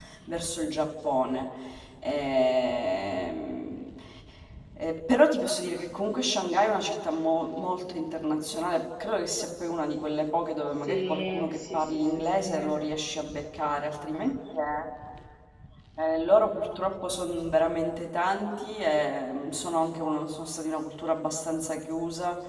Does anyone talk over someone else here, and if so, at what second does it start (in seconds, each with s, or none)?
10.8 s